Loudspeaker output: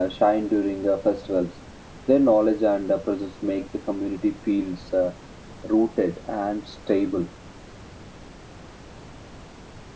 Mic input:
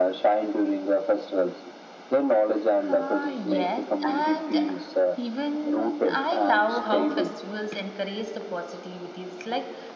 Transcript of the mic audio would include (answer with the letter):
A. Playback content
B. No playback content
A